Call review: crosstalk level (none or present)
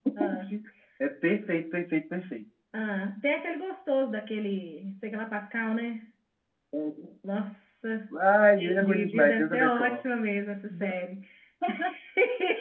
present